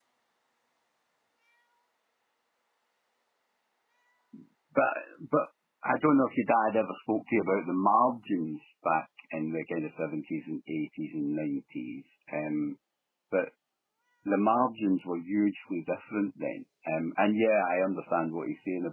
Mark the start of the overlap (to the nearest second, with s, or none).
none